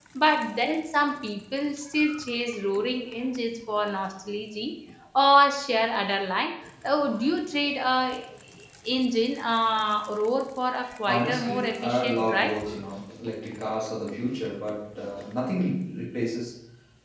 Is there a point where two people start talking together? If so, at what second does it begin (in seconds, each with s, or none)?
11.1 s